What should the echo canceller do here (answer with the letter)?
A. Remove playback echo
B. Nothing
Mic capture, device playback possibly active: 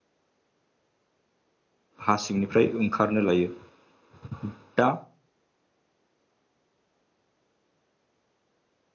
B